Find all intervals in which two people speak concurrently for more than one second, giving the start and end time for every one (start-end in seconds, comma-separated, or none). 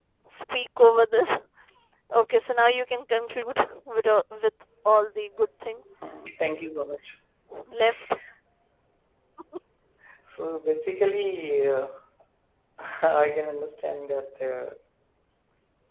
none